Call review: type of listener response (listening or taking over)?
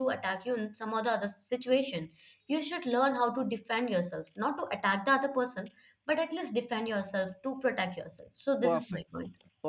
taking over